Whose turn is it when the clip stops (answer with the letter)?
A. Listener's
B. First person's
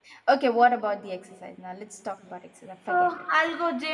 A